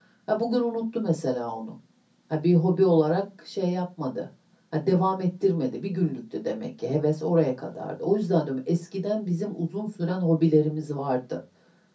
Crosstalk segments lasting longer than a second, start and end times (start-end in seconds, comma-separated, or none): none